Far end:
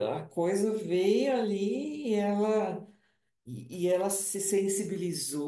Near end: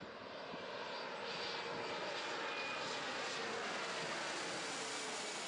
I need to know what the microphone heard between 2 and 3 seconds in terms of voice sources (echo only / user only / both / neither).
neither